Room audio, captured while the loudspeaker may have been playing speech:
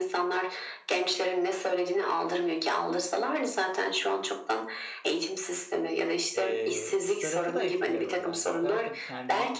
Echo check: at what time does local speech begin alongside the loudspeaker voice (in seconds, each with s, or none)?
6.3 s